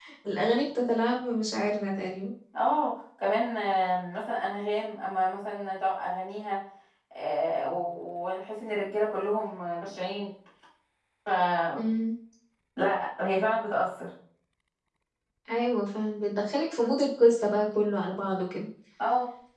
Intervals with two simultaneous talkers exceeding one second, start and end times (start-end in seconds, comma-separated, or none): none